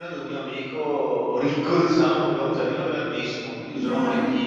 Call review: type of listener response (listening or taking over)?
listening